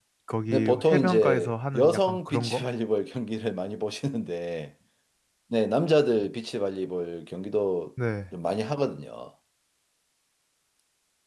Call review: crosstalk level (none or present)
present